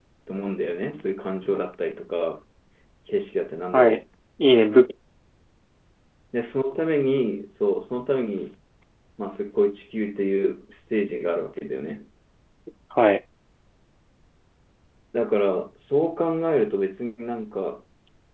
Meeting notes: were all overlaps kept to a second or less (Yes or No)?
Yes